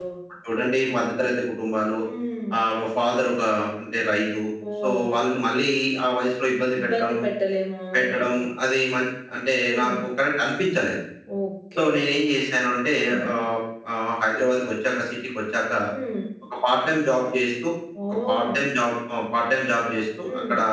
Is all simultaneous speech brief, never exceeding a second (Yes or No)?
Yes